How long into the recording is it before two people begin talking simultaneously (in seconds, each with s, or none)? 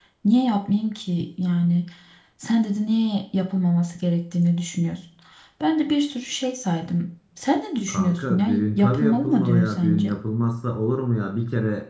7.9 s